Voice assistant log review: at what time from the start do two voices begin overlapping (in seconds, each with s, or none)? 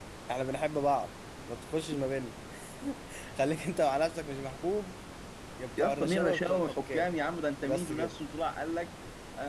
5.8 s